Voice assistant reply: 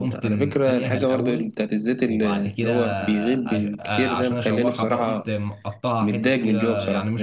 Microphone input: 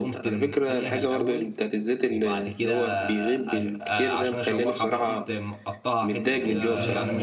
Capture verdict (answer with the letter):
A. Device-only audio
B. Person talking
B